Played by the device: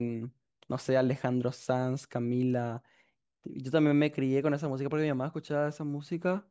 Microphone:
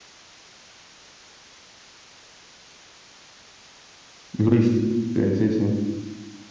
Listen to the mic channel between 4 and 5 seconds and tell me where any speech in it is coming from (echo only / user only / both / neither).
user only